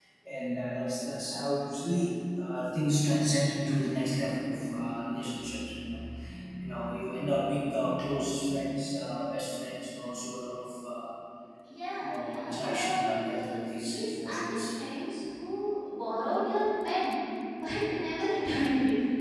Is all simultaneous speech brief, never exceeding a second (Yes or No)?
No